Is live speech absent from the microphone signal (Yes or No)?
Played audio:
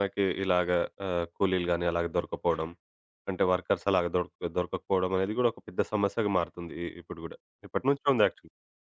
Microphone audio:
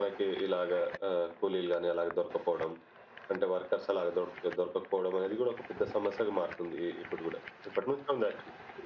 Yes